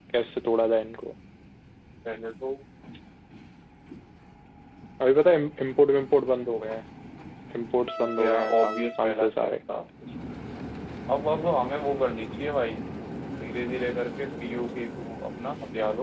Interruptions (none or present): present